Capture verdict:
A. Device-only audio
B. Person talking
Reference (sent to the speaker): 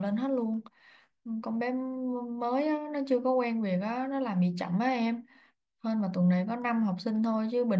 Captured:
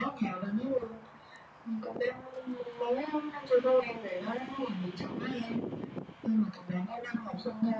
A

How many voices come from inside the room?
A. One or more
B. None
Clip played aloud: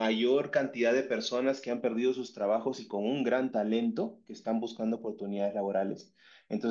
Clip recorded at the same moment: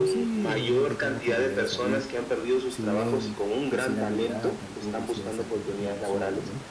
A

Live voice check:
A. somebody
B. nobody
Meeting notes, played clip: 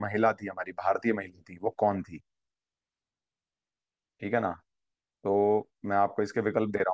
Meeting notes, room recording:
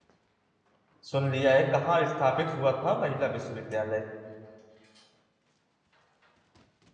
A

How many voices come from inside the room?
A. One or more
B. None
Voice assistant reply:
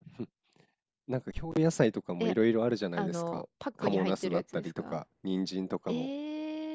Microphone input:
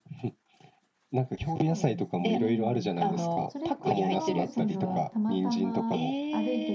A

